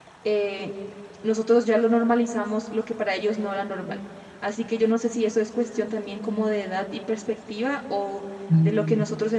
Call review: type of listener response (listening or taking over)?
listening